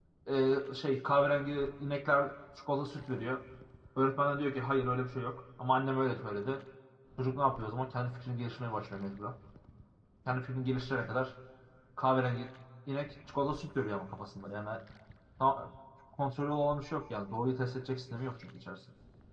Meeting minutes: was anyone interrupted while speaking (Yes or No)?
No